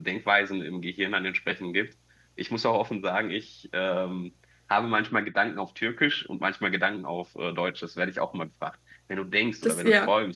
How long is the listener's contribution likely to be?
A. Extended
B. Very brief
B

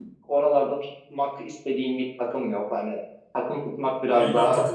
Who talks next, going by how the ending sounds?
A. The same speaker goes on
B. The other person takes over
B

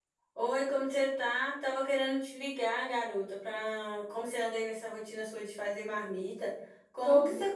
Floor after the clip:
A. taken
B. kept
B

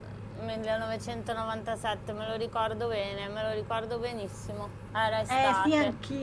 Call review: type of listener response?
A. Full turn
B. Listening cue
A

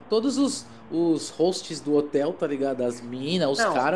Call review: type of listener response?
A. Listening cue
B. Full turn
A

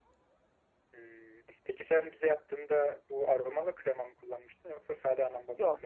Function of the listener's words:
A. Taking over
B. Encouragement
A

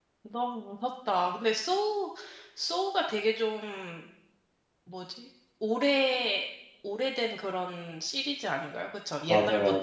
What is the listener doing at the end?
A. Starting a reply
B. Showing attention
A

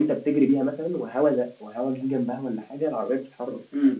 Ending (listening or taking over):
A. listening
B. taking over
B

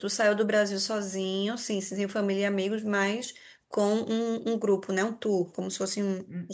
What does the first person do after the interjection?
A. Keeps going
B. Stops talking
B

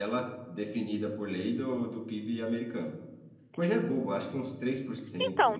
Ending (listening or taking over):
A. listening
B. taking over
B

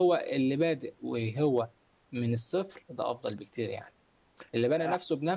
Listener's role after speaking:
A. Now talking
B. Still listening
B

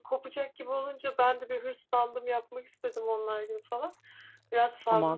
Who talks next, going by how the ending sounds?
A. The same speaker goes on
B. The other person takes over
B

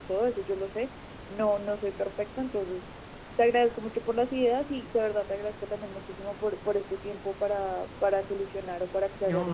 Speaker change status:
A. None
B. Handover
B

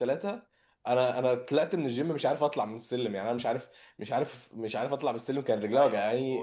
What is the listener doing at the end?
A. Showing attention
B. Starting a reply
B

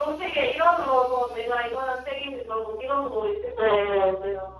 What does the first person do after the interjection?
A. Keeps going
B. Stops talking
B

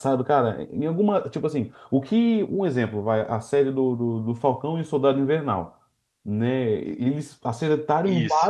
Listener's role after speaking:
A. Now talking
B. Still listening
B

